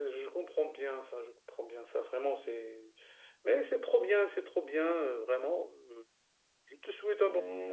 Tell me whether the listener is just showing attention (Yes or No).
No